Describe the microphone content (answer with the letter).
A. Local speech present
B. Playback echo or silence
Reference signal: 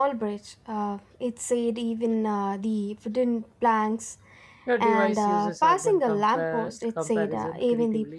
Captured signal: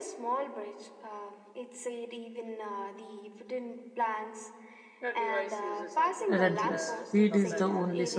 A